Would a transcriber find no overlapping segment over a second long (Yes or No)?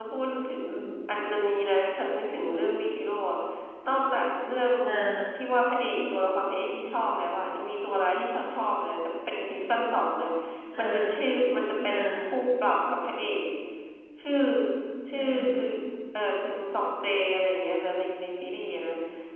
Yes